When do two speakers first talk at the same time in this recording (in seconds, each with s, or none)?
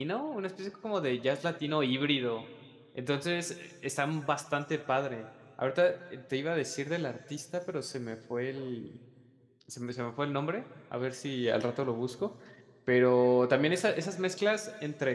none